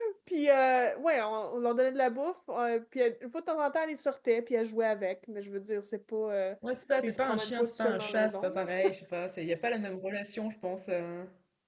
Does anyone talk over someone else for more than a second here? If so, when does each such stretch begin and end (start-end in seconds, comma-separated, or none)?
7.0-8.9